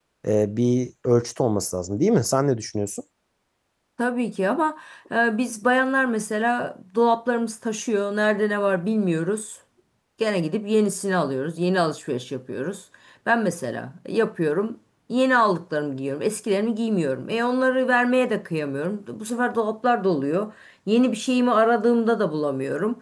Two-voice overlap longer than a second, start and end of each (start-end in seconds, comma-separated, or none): none